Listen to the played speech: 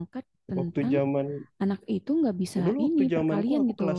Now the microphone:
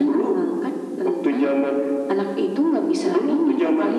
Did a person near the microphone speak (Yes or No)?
No